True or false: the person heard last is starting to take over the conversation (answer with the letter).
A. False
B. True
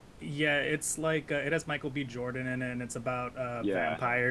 B